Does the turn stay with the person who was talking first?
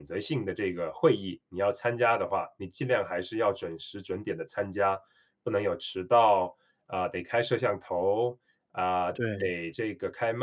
Yes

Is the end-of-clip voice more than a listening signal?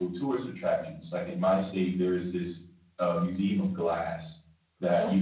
No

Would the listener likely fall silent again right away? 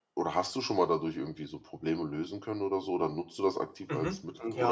No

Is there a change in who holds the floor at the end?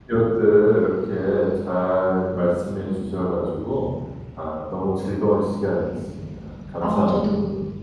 Yes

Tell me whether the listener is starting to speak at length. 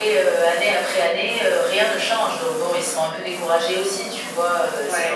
No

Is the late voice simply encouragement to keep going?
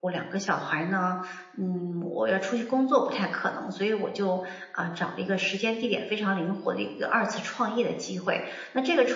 Yes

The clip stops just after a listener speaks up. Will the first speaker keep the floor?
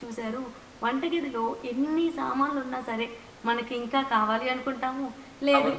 Yes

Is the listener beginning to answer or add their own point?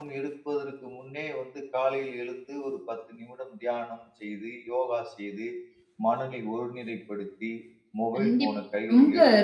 Yes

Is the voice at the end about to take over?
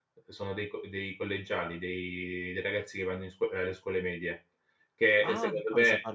Yes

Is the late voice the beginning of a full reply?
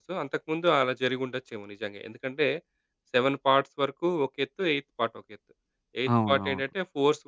No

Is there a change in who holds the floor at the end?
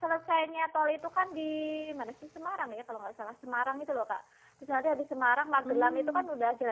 No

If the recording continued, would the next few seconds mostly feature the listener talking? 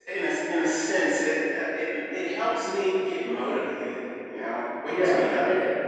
Yes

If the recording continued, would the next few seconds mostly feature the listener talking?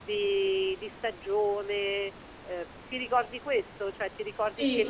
Yes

